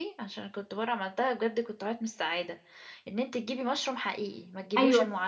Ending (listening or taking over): taking over